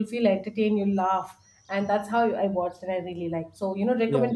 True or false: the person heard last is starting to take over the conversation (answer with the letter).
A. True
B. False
B